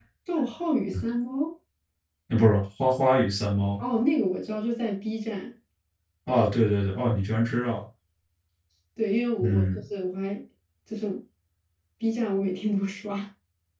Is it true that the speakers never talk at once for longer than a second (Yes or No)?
Yes